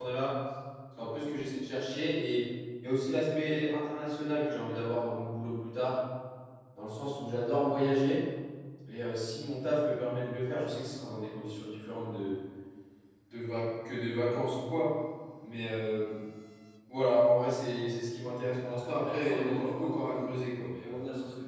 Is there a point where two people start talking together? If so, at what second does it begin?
18.5 s

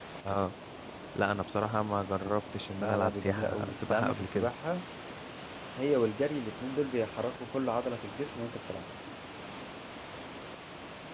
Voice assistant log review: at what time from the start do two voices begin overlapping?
2.8 s

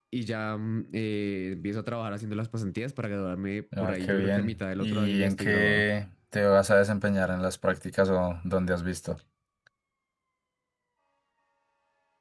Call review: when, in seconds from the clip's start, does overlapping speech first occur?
3.7 s

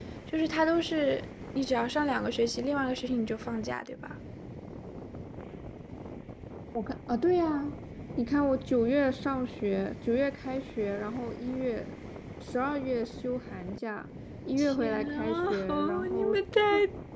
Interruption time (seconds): 14.6 s

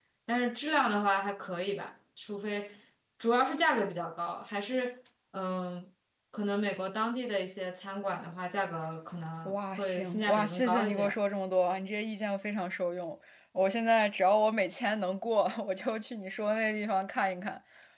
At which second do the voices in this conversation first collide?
9.4 s

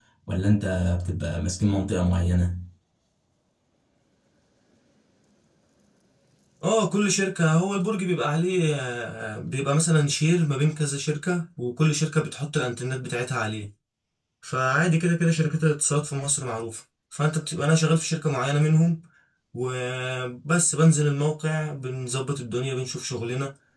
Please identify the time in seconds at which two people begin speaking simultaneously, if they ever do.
none

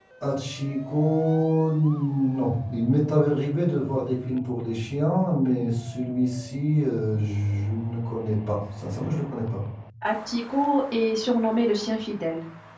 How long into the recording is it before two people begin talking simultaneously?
none

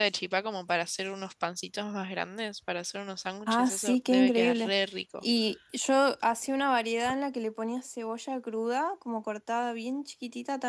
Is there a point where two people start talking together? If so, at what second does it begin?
3.5 s

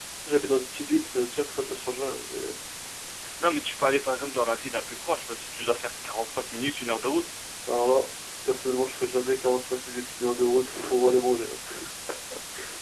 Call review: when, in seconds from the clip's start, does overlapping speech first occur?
none

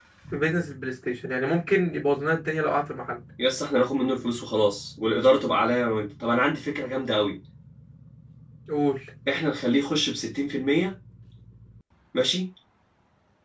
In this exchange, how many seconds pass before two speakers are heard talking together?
none

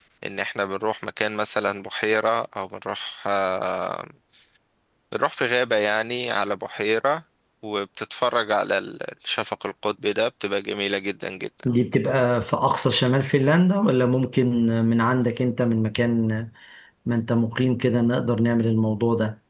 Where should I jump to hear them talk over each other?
none

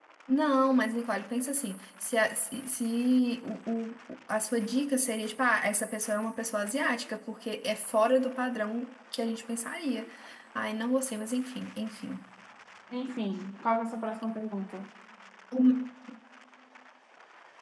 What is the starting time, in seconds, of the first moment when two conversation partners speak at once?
none

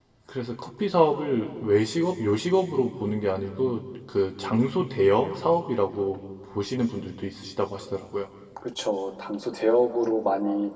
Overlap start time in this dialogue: none

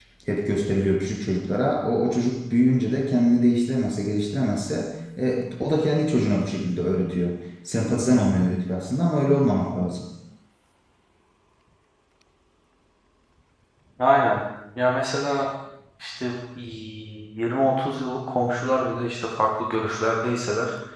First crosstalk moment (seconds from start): none

